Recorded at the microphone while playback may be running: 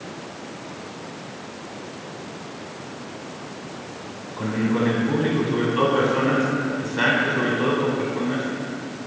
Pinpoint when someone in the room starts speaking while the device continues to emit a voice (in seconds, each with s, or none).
4.4 s